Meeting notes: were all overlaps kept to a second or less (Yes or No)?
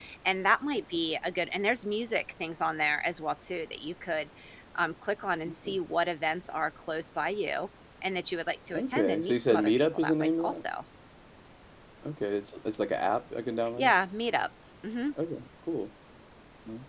No